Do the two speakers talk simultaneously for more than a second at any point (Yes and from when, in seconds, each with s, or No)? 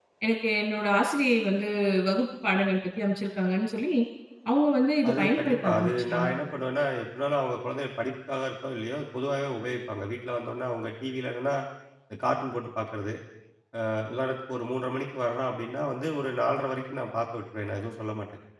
Yes, from 5.1 s